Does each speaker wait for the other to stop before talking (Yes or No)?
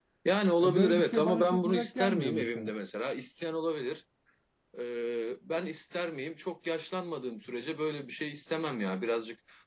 No